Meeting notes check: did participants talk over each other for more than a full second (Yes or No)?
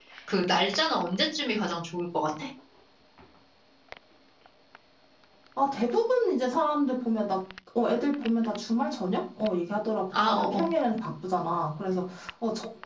No